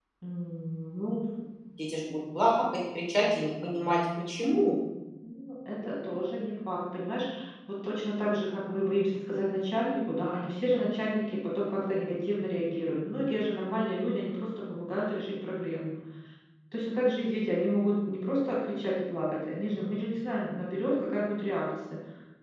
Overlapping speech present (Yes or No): No